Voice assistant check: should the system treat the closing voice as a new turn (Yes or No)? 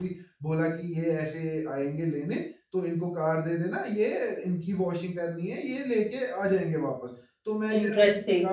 No